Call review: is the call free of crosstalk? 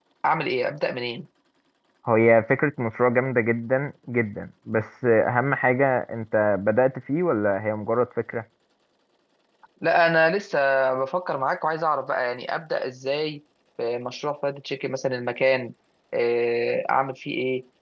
Yes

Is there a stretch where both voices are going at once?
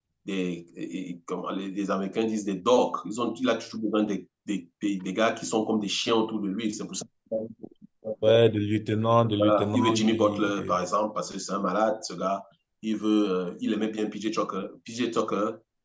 Yes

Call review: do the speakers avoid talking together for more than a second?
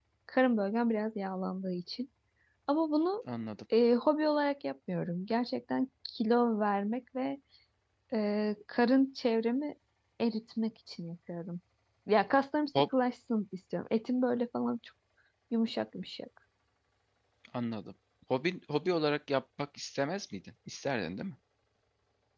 Yes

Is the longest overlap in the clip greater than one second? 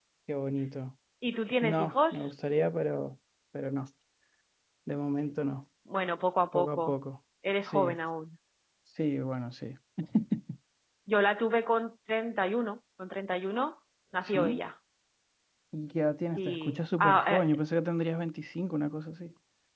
Yes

